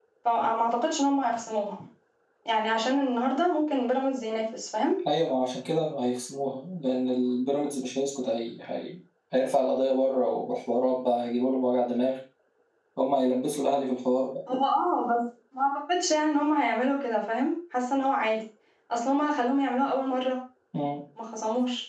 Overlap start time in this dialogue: none

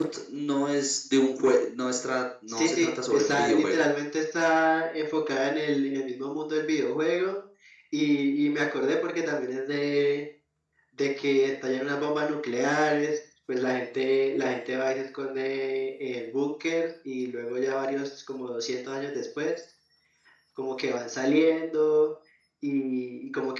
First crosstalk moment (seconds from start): 2.5 s

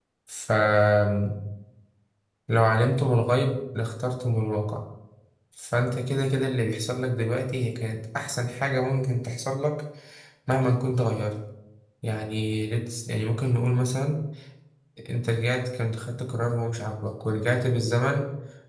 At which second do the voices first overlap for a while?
none

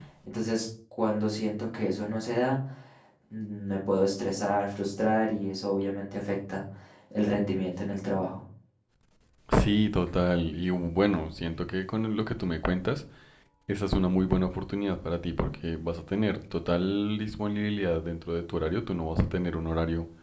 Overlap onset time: none

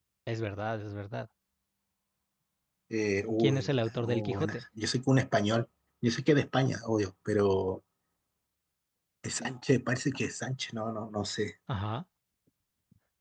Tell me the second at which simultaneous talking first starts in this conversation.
3.4 s

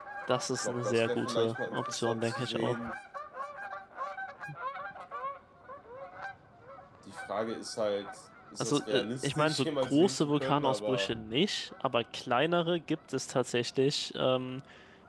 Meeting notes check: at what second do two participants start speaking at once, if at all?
0.6 s

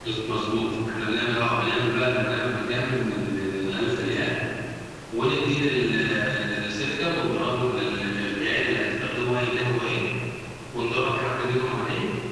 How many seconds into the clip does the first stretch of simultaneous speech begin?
none

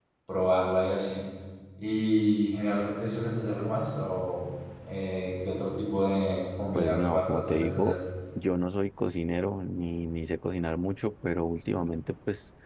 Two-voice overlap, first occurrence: 6.8 s

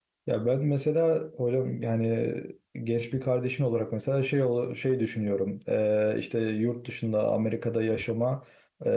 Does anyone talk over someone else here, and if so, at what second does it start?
none

